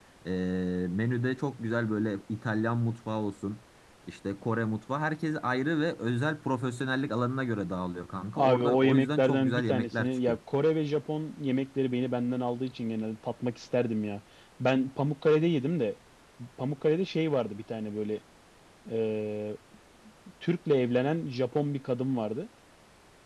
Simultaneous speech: Yes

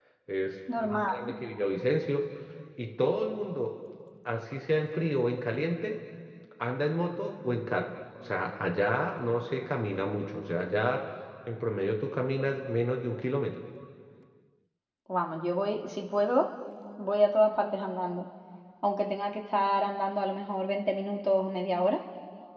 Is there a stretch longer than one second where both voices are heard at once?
No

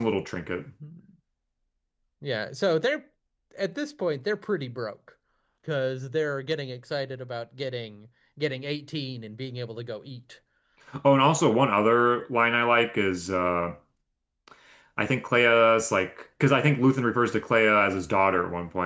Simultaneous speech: No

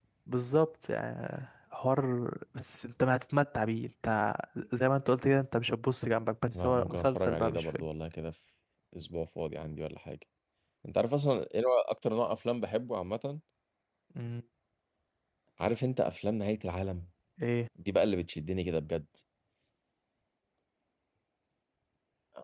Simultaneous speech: Yes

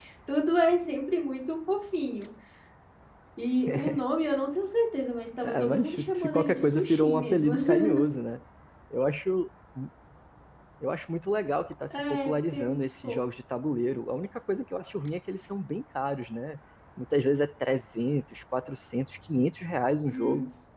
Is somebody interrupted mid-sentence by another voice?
Yes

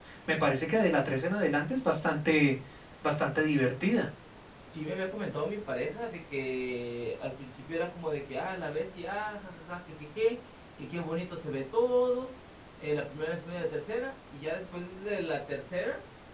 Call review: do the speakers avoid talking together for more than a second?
Yes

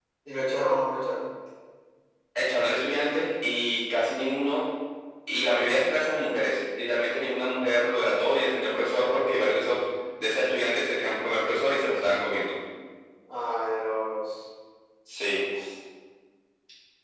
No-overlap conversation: Yes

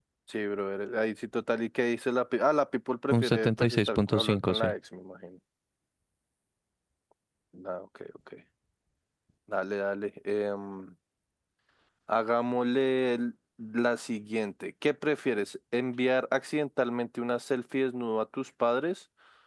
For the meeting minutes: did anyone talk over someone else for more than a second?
Yes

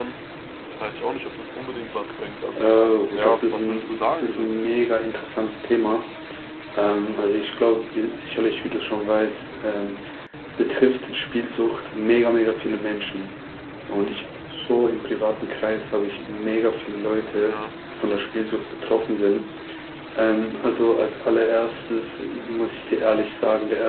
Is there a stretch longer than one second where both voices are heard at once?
Yes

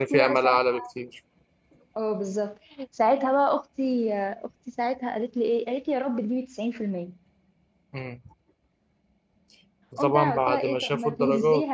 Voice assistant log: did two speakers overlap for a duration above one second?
Yes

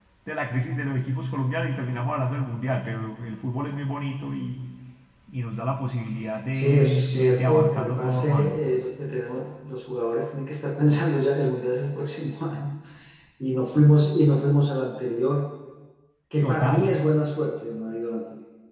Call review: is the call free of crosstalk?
No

